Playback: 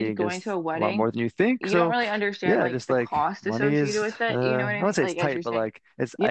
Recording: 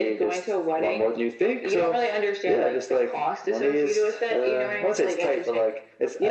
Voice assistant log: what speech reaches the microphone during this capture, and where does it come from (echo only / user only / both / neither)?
echo only